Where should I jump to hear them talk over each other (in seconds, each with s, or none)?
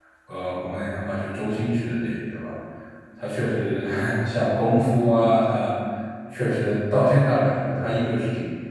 none